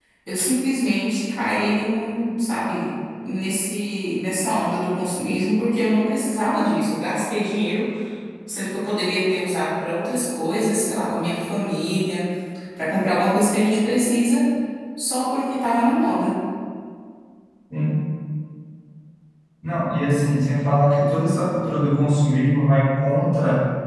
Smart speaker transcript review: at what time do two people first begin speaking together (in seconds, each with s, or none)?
none